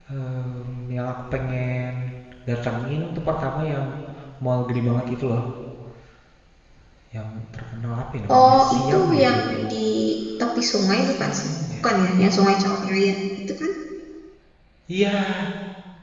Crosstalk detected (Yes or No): Yes